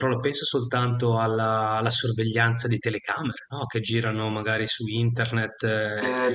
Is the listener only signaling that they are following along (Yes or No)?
No